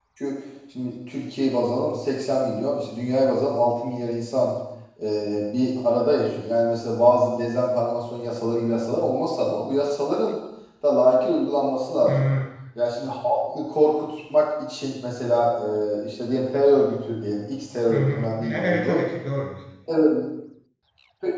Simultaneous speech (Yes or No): Yes